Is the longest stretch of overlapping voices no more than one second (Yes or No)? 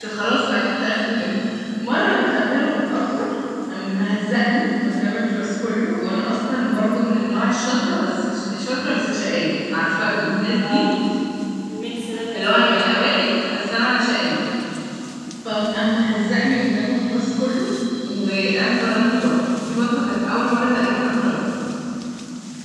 Yes